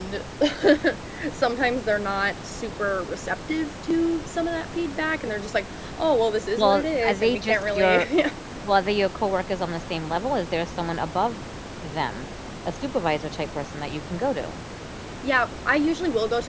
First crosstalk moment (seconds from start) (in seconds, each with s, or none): 6.5 s